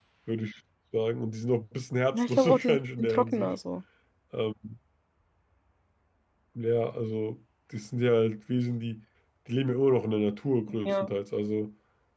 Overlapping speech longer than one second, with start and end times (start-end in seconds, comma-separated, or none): 2.1-3.5